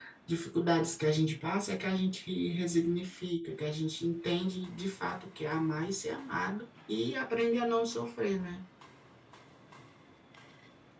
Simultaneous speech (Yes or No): No